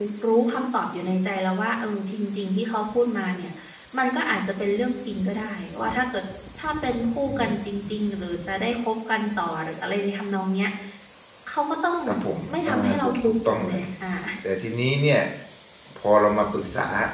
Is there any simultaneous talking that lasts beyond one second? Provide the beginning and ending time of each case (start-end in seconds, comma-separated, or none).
12.5-13.8